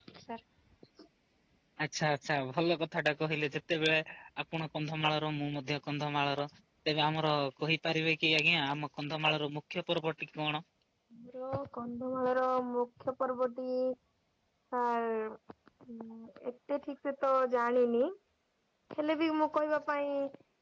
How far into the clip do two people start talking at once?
none

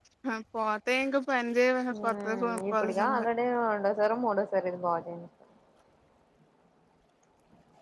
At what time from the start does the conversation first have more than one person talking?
1.9 s

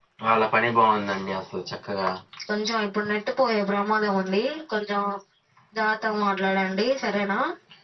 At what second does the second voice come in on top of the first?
none

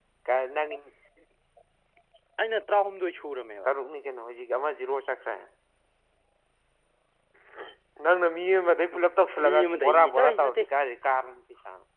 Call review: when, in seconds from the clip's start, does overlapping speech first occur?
9.4 s

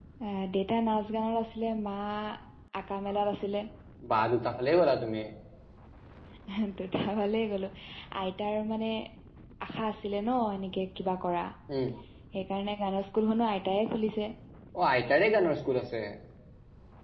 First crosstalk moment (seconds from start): none

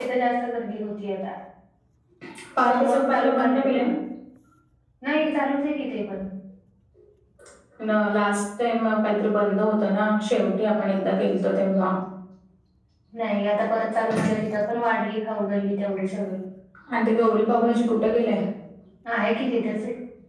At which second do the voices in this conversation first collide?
2.6 s

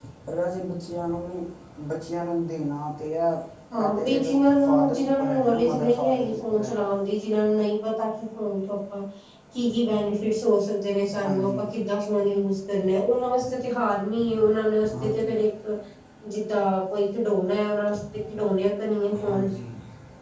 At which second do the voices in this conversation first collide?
3.8 s

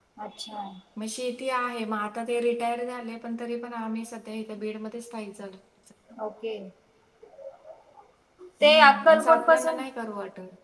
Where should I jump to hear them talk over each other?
8.6 s

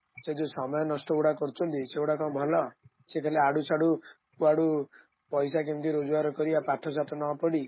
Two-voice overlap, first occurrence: none

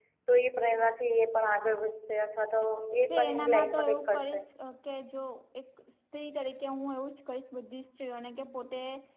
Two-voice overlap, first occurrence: 3.1 s

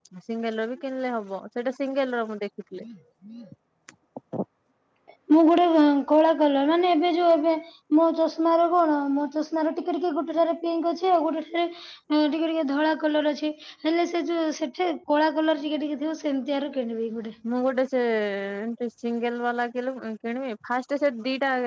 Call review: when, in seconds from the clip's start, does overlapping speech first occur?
none

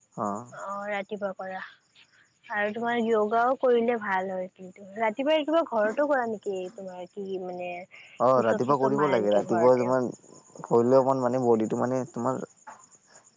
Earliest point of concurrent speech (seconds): 8.4 s

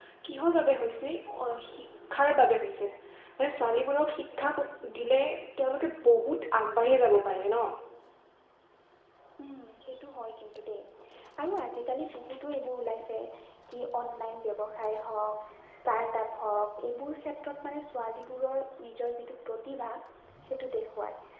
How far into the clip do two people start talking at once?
none

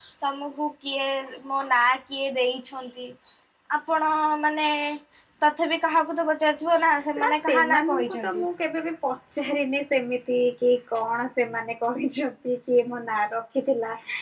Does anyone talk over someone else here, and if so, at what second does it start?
7.2 s

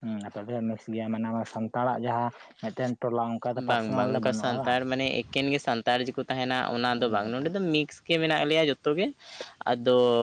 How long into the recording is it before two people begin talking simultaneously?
3.6 s

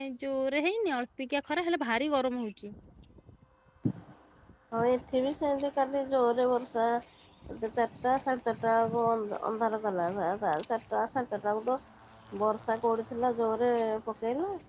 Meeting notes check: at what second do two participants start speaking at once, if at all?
none

